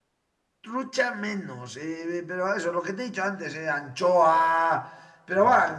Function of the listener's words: listening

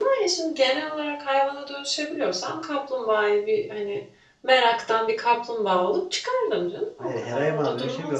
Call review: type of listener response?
taking over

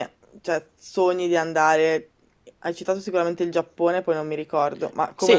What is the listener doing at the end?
taking over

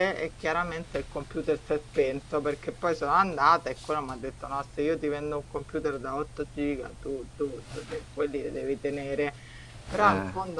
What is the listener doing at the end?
listening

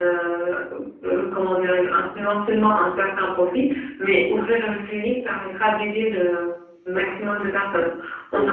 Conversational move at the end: listening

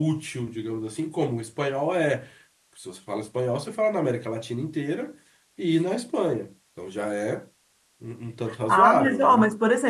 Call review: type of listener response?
taking over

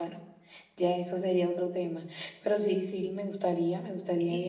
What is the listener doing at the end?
listening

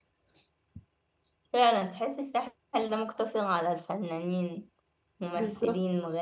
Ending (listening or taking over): taking over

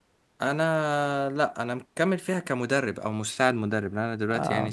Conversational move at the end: listening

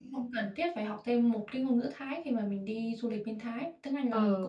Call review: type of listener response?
taking over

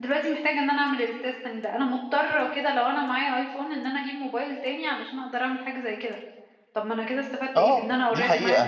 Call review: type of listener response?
taking over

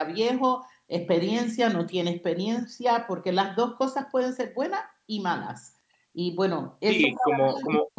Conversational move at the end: taking over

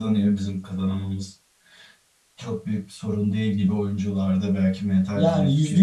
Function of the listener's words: taking over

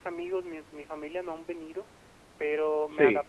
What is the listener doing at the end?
listening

